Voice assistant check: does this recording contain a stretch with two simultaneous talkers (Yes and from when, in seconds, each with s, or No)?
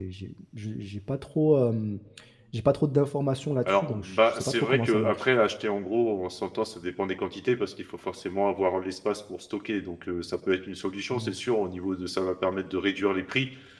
Yes, from 3.7 s